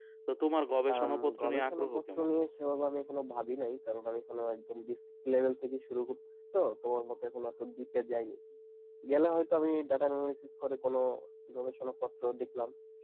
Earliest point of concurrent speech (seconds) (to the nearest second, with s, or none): 1 s